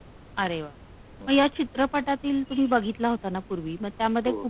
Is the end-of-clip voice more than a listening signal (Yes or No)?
No